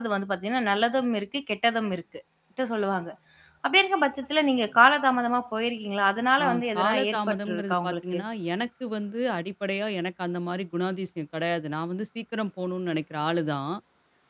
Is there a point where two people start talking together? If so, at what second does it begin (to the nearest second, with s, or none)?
6 s